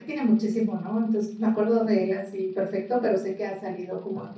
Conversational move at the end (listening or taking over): taking over